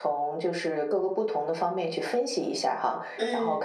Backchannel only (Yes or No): Yes